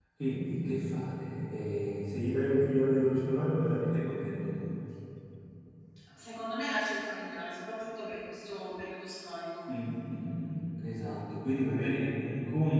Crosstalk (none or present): none